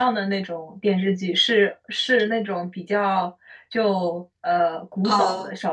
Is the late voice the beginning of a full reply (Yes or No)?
No